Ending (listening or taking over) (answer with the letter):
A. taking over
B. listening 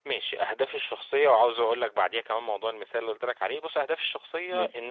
B